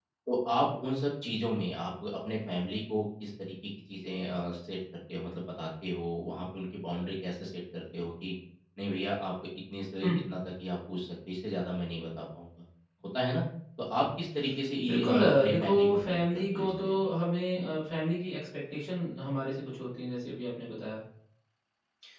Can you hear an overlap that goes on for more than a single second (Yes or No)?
Yes